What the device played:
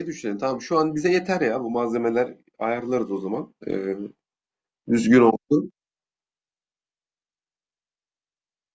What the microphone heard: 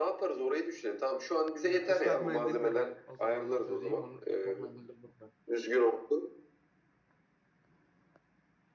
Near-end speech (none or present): present